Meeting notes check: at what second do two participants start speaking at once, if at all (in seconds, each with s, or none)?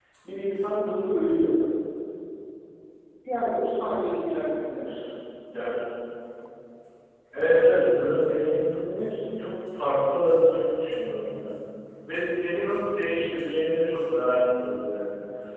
none